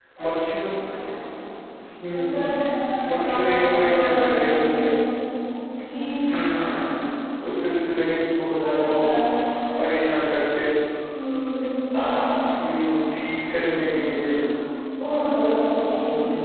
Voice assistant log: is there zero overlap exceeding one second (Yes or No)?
No